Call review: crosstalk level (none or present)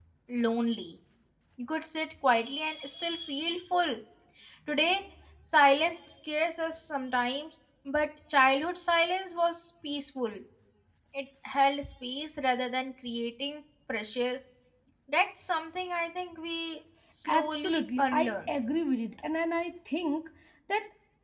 present